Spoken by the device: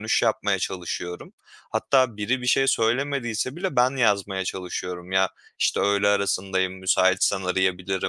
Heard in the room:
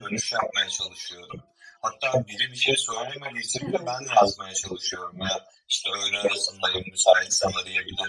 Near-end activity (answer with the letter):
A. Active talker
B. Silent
A